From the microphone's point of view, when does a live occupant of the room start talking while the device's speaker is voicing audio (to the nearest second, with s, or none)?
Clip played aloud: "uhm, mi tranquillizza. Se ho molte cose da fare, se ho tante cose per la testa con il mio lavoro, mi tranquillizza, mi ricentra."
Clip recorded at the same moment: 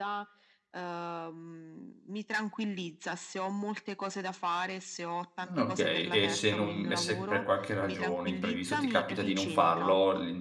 5 s